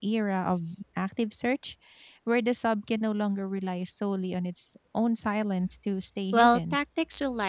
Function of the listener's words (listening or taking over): taking over